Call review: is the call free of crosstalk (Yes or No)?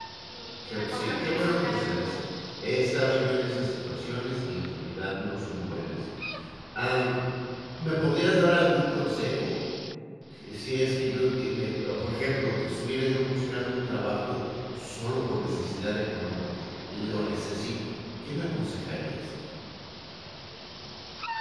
No